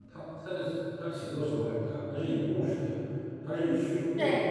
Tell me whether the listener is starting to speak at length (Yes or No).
No